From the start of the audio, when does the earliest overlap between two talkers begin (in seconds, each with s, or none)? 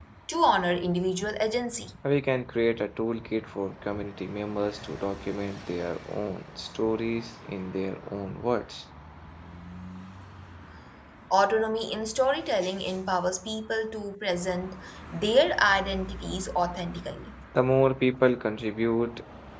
none